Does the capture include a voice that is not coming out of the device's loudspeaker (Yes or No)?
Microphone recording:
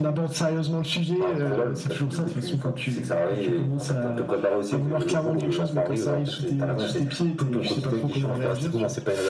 No